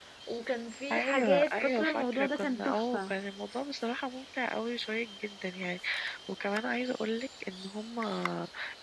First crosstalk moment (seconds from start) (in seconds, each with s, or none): 0.9 s